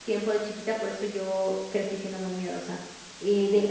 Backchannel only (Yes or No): Yes